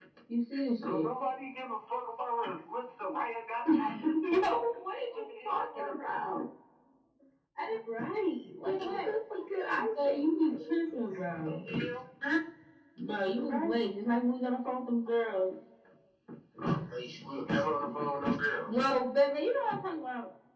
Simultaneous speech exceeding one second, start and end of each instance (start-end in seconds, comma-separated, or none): 8.6-10.5